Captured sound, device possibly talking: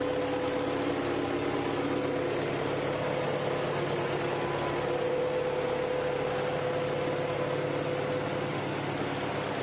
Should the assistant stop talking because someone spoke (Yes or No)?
No